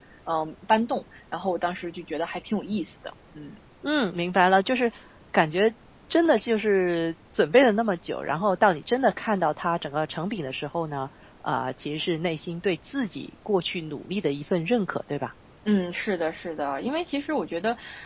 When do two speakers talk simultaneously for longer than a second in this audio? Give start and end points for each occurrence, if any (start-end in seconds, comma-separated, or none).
none